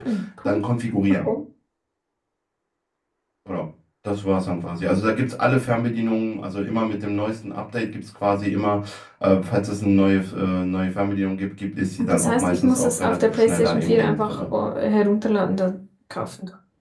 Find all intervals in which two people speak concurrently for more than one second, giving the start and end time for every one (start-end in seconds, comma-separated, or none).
12.0-14.4